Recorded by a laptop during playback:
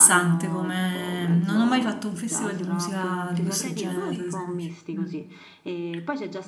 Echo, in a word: present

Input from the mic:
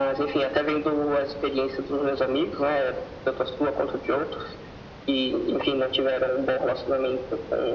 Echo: present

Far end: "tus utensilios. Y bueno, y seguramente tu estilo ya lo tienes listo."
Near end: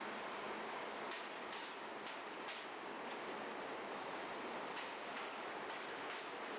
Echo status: none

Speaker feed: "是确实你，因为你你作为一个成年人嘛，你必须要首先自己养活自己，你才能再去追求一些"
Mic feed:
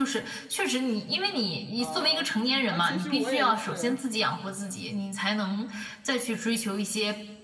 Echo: present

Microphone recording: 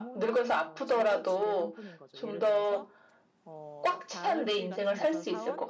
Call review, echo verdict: present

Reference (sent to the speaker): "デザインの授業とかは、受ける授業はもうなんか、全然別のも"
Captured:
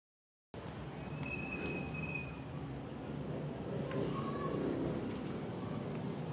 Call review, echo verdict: none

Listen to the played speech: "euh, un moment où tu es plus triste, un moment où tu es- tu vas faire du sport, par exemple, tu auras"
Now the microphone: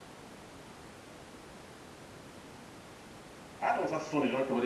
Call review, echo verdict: none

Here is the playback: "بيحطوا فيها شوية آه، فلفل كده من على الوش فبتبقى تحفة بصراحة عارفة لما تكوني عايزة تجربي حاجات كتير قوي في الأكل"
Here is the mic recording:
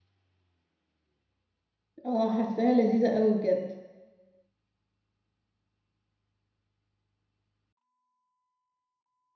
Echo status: none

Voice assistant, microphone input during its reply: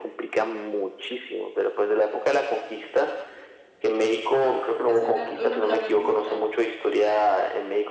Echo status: present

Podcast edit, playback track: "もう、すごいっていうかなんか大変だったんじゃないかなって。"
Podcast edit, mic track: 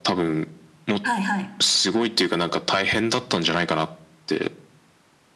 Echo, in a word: present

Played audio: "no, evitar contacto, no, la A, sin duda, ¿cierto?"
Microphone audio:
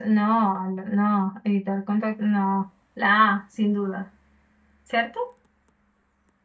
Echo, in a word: present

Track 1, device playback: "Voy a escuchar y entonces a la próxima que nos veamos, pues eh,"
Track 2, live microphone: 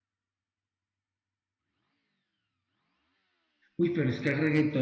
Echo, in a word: none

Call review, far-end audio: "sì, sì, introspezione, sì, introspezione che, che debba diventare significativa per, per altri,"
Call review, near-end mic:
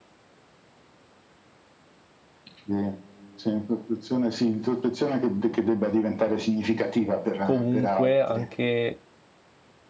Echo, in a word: present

